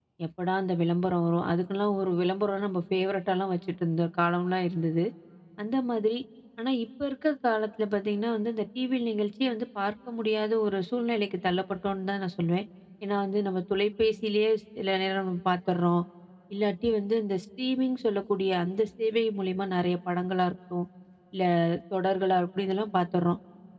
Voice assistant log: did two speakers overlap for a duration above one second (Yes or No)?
No